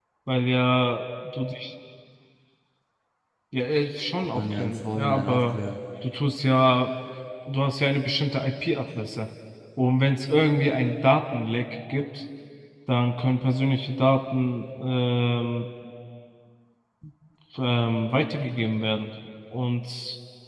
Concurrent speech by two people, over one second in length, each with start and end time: 4.3-5.5

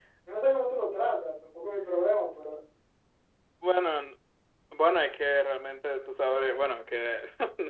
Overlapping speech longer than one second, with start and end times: none

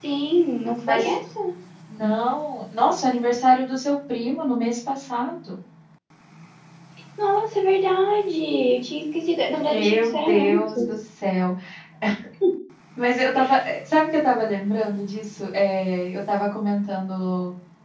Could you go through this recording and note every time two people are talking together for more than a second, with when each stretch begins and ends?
9.5-10.9

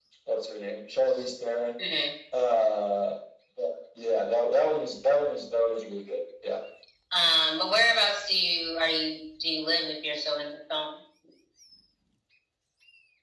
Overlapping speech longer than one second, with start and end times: none

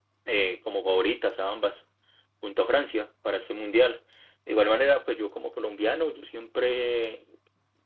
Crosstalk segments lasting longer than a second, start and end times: none

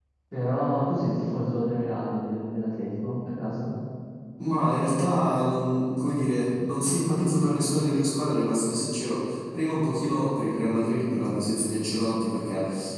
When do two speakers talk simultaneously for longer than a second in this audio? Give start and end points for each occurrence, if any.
none

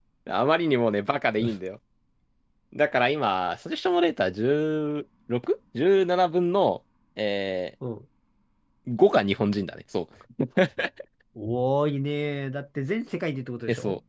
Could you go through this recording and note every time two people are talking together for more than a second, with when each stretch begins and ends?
none

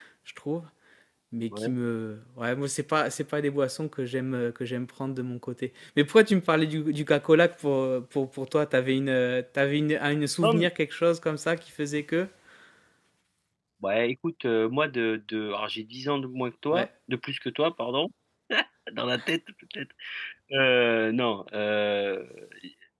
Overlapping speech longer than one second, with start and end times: none

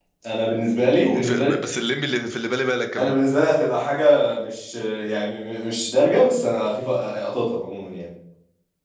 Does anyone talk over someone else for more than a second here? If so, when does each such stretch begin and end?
none

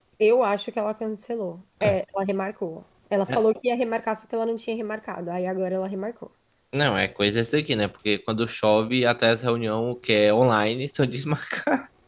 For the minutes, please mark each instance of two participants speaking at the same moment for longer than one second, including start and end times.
none

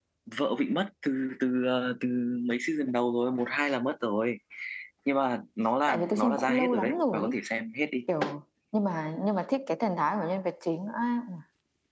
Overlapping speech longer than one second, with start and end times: 5.9-7.3

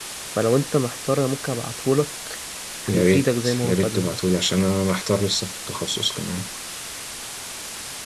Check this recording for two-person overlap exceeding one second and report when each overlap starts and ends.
2.9-4.2

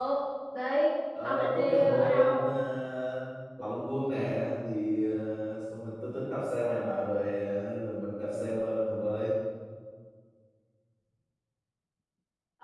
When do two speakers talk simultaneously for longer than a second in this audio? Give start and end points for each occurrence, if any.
1.2-2.4

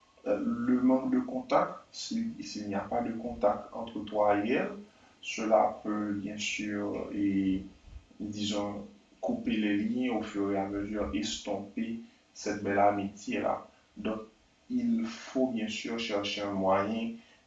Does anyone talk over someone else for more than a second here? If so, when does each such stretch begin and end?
none

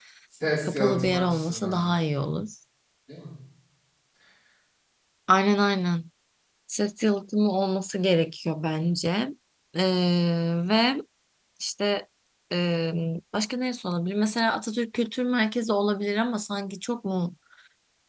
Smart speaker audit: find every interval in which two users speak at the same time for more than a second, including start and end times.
0.6-1.8

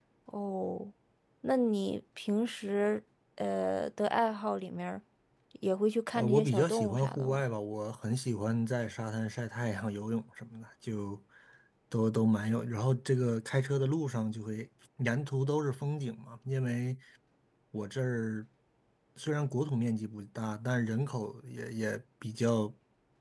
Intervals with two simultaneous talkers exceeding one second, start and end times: 6.2-7.4

